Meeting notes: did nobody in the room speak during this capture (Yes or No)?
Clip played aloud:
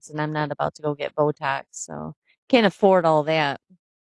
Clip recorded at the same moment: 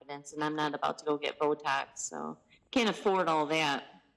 Yes